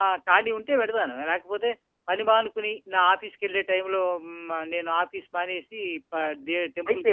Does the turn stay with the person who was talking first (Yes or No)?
No